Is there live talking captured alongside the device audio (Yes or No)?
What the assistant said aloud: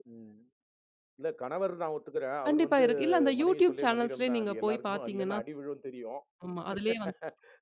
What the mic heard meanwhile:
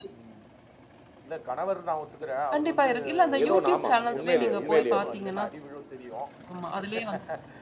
Yes